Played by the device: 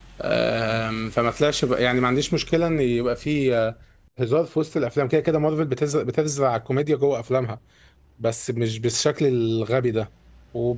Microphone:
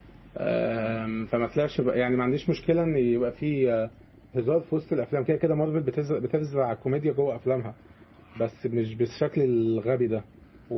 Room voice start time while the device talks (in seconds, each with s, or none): none